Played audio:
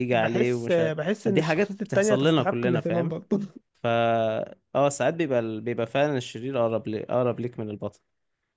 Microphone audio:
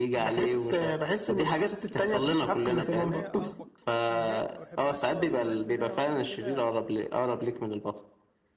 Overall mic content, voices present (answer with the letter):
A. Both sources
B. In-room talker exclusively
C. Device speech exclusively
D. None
A